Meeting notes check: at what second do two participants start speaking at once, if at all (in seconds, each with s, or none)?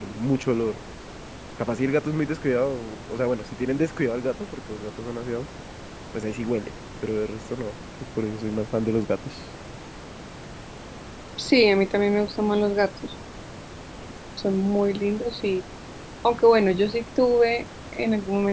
none